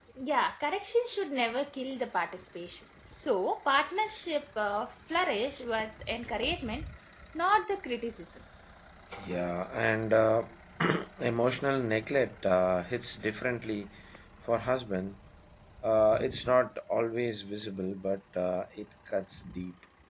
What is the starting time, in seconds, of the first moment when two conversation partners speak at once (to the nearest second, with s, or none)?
none